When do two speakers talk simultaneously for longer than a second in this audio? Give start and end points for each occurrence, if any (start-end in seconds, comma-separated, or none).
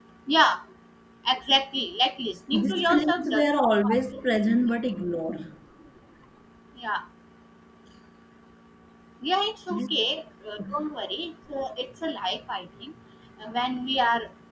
2.5-4.5